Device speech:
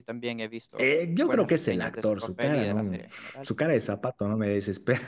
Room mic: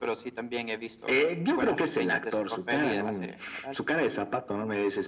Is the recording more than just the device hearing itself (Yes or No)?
No